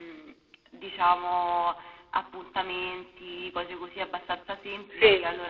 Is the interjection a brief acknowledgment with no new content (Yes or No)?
Yes